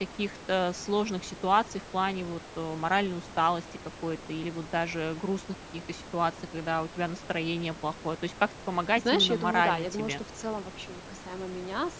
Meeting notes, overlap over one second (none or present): present